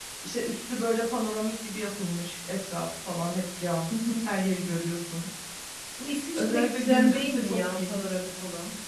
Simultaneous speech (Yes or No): Yes